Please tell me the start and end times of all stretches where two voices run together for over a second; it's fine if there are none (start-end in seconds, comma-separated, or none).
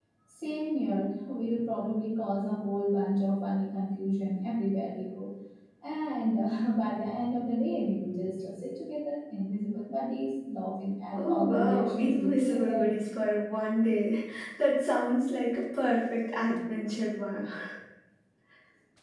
11.2-12.9